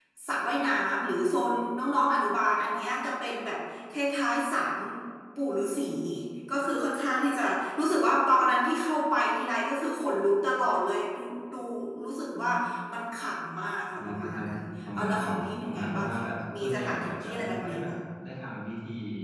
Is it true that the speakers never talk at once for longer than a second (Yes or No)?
No